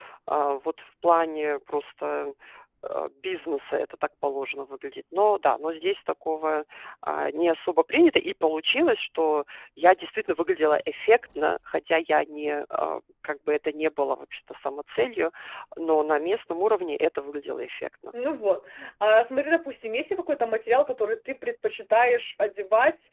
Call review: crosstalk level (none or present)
none